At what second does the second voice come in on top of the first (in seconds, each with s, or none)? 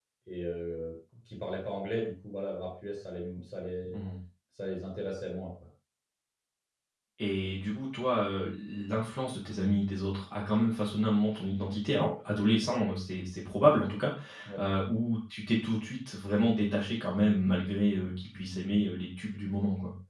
none